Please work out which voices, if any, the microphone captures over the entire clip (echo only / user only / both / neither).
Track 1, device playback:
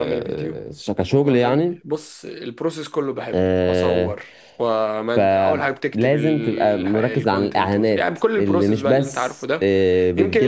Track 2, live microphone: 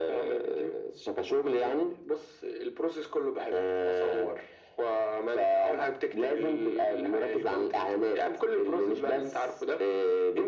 echo only